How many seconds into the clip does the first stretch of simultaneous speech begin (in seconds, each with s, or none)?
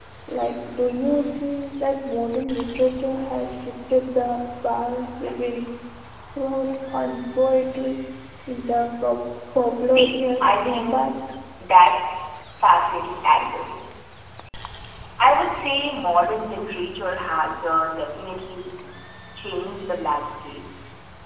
9.9 s